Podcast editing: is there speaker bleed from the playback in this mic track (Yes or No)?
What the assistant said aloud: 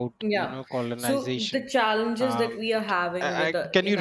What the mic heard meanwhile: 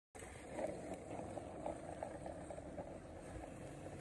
No